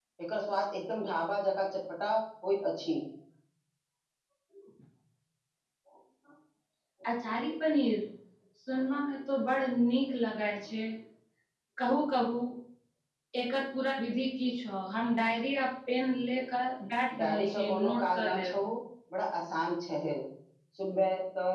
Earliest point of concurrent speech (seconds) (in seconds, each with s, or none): 17.2 s